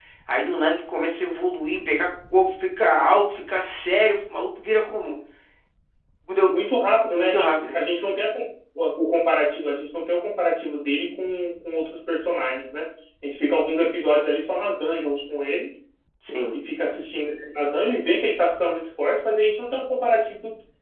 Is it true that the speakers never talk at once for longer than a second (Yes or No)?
Yes